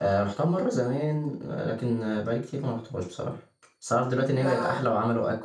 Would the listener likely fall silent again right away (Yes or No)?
Yes